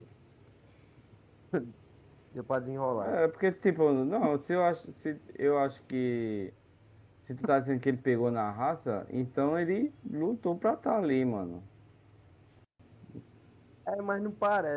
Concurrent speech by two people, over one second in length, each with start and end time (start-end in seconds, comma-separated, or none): none